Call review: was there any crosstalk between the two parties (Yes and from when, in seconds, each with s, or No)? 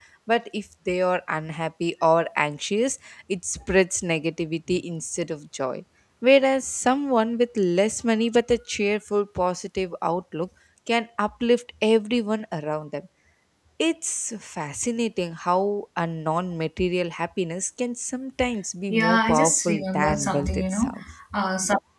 Yes, from 18.9 s